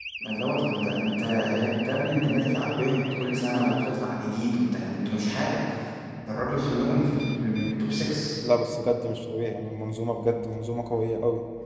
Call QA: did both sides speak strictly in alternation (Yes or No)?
Yes